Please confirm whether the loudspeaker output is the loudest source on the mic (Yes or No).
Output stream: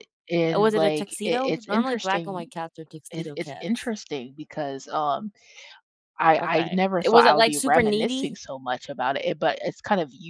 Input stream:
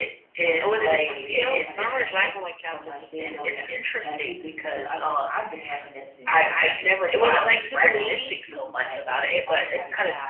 Yes